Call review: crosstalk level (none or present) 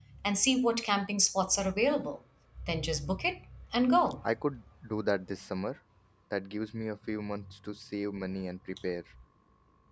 none